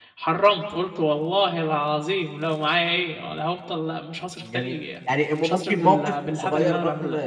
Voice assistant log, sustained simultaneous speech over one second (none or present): present